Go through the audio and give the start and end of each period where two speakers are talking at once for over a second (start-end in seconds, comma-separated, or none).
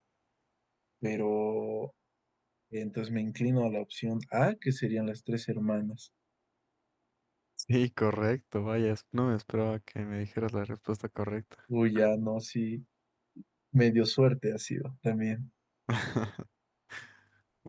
none